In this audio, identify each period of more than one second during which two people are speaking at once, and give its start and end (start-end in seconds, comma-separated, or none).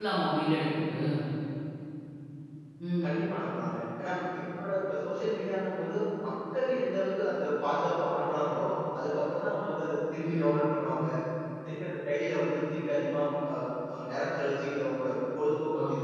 none